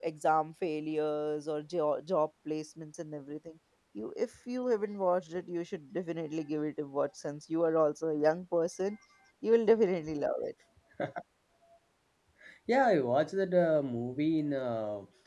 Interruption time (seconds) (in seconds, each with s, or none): none